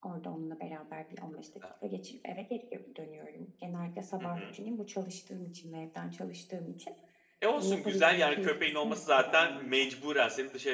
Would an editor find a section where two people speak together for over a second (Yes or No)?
Yes